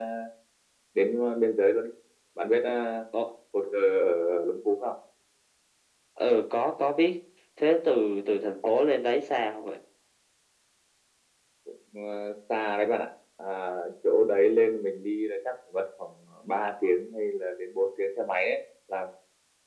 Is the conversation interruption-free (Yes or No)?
Yes